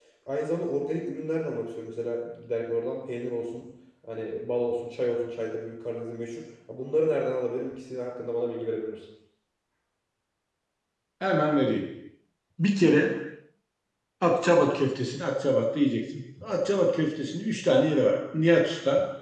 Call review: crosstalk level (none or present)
none